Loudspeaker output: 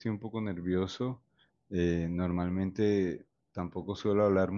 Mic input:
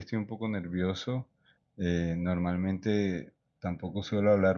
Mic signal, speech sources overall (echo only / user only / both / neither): echo only